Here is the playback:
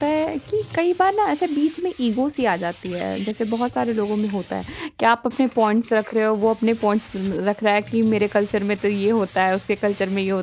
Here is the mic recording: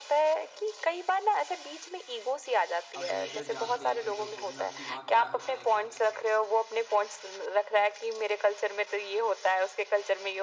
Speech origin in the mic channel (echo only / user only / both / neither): both